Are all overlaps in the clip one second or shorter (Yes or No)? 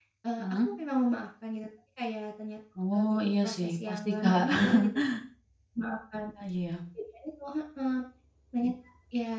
No